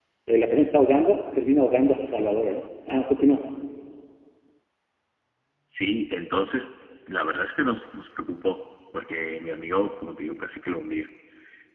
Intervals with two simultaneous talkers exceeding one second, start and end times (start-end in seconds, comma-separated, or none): none